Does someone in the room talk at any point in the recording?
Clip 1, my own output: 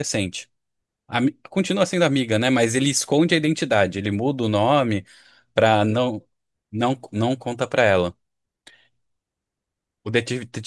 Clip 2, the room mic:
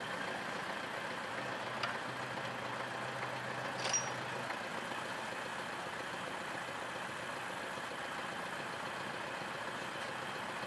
No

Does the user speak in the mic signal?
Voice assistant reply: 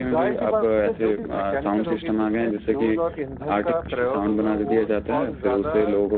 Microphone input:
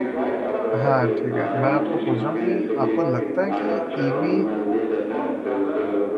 Yes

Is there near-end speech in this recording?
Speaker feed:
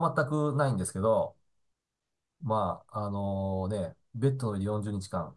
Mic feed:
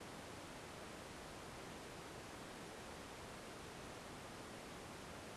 No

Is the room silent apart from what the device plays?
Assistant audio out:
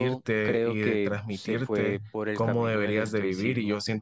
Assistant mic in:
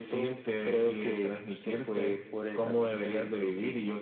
Yes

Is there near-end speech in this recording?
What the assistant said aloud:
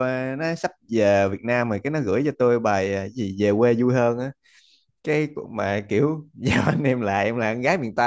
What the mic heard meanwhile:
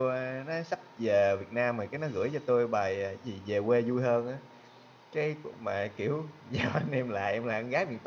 No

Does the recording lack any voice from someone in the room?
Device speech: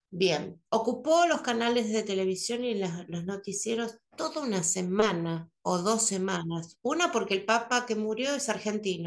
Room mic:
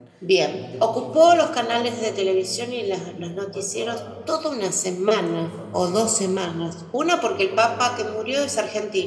No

